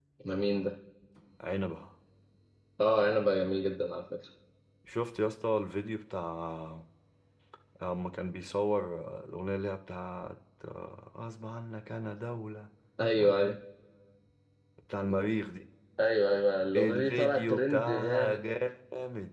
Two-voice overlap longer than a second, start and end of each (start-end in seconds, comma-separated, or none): 16.8-18.4